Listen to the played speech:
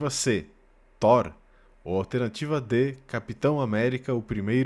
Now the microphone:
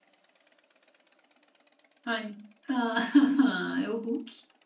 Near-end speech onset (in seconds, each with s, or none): 2.0 s